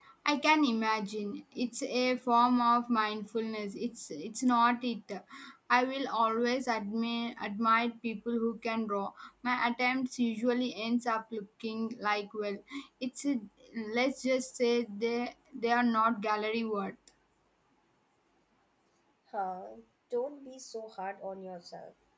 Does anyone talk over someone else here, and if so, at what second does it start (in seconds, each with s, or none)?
none